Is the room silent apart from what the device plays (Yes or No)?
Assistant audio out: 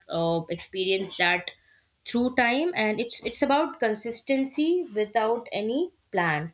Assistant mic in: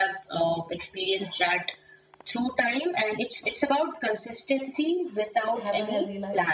No